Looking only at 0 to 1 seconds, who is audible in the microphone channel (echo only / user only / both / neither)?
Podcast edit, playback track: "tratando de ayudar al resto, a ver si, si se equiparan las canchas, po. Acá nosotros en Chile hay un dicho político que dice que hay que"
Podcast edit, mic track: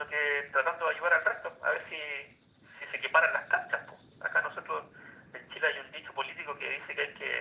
echo only